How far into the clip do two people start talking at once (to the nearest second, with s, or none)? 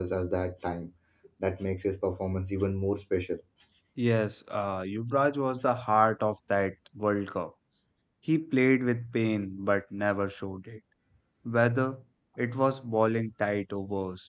none